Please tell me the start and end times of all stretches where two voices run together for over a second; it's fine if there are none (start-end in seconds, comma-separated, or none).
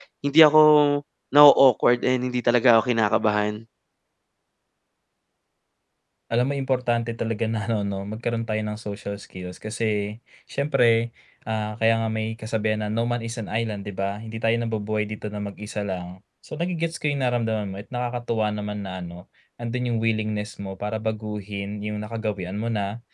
none